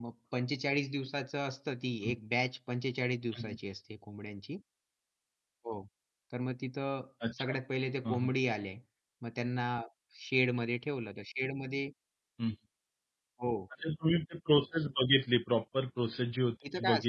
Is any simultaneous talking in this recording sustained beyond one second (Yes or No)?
No